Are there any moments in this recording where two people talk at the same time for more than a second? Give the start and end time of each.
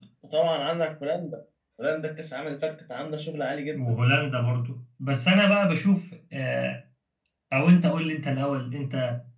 none

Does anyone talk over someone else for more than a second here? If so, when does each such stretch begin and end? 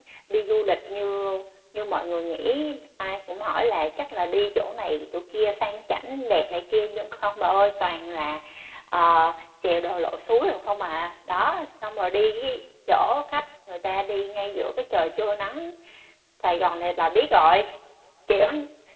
none

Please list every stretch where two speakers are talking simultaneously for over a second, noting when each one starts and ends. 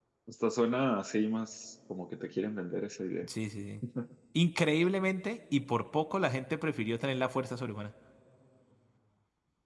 none

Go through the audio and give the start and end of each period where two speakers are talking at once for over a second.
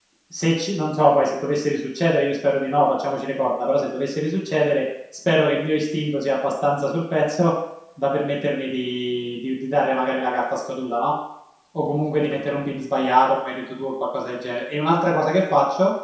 none

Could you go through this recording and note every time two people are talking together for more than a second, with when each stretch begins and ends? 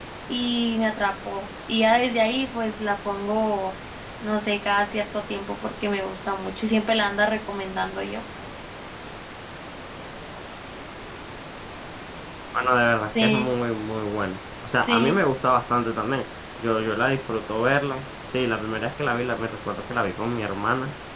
none

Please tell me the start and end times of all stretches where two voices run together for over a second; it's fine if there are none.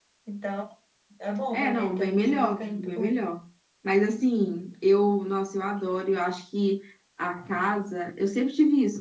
1.5-3.1

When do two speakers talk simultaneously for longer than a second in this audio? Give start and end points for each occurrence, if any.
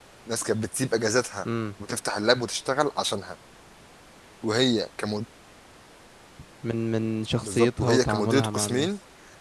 7.4-8.9

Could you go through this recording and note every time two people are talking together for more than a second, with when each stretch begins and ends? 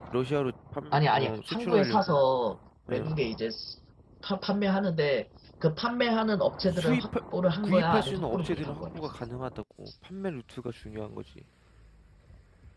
0.9-2.2, 7.6-8.8

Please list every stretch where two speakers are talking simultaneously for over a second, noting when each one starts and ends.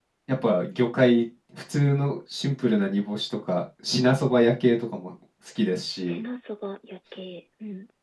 none

